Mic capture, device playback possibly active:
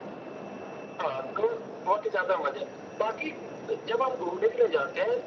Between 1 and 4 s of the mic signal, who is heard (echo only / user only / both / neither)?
echo only